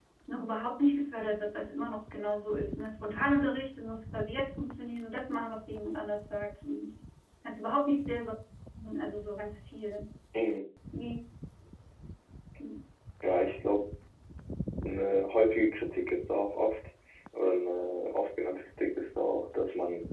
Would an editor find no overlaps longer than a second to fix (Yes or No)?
Yes